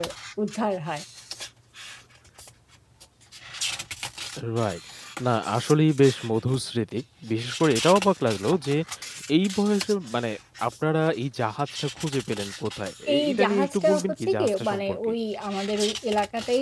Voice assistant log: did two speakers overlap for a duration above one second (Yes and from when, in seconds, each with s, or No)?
Yes, from 13.1 s